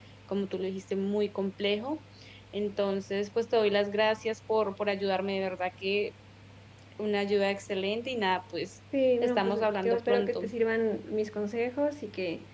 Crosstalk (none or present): present